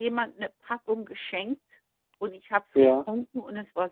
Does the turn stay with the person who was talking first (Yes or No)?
Yes